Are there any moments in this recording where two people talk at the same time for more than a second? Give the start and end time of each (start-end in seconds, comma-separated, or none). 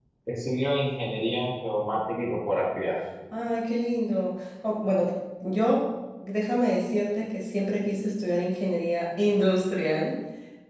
none